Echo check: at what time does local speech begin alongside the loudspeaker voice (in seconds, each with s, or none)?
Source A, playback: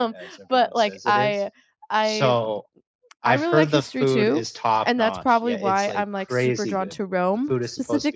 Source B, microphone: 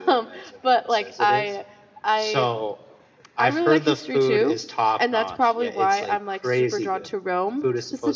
none